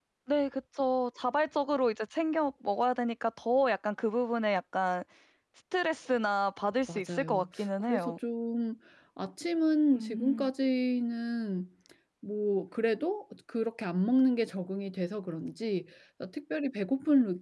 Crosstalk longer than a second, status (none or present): present